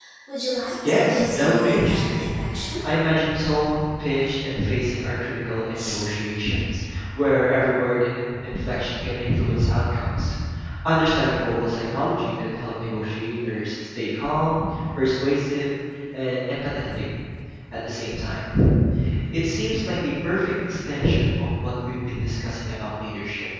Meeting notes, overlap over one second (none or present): present